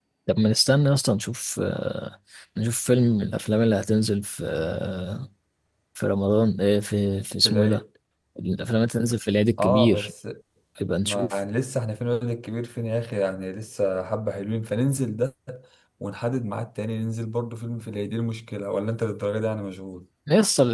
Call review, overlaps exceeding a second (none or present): none